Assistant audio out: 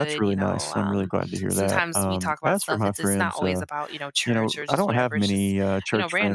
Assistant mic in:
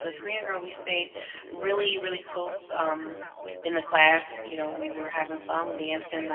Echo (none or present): present